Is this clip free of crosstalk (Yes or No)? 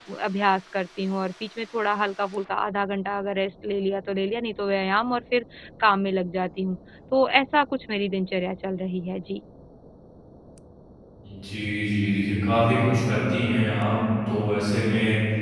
Yes